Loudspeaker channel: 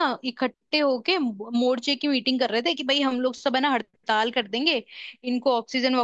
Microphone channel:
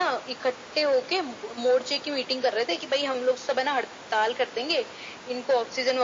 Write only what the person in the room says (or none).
none